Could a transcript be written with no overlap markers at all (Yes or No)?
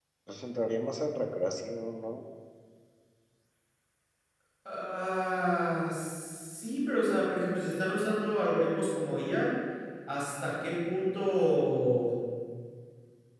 Yes